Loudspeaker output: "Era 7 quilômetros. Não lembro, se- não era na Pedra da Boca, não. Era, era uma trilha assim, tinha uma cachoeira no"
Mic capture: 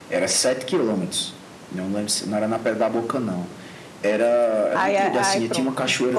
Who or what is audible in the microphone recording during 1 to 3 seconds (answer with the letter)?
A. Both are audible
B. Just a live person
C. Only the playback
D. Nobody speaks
C